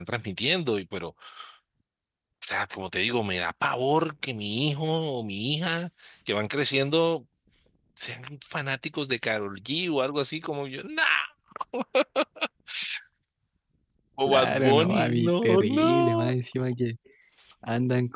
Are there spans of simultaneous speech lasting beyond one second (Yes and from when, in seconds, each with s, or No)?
Yes, from 14.3 s